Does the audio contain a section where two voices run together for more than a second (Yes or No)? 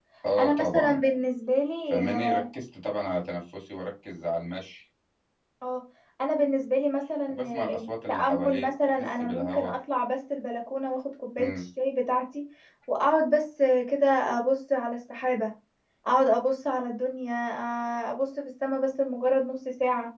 Yes